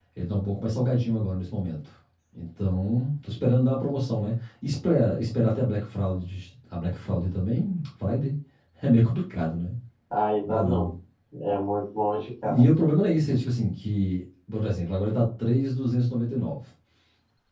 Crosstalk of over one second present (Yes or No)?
No